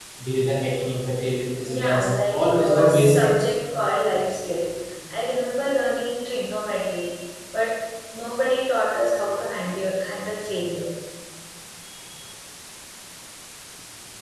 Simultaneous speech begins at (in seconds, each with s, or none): 1.6 s